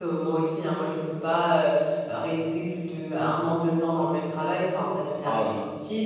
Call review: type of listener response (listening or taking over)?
listening